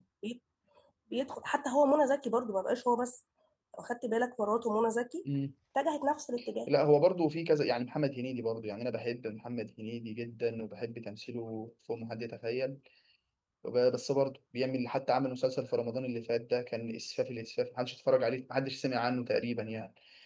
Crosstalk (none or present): none